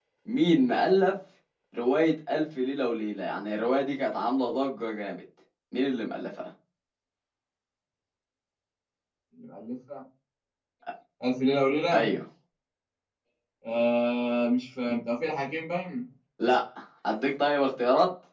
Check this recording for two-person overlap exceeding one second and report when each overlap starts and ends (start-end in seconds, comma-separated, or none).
none